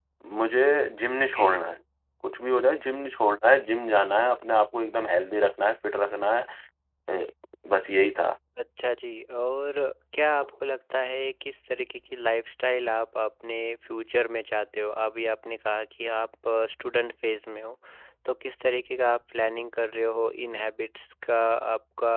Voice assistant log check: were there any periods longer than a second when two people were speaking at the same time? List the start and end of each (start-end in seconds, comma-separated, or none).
none